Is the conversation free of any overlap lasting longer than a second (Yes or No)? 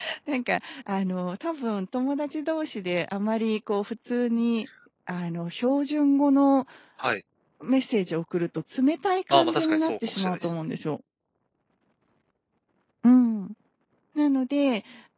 No